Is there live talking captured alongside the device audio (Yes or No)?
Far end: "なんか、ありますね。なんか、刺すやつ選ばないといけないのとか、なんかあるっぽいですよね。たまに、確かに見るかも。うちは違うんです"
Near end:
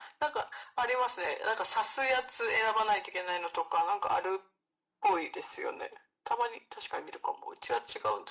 No